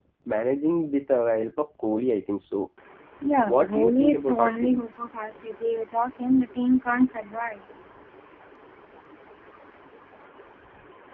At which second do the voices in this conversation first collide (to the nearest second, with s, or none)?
3 s